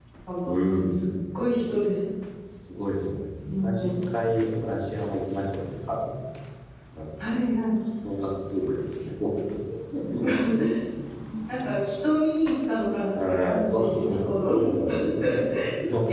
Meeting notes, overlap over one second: present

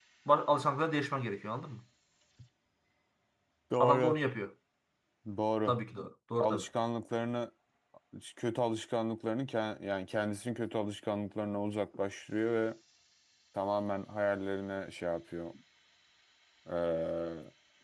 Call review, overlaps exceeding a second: none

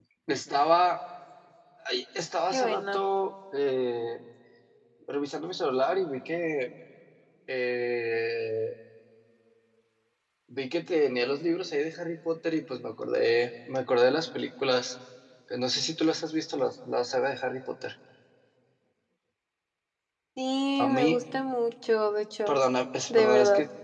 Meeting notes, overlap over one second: none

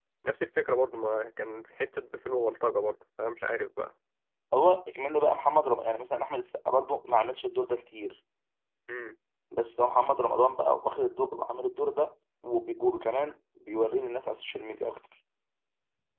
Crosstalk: none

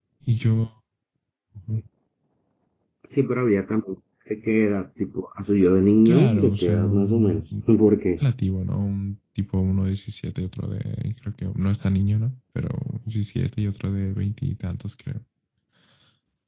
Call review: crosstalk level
present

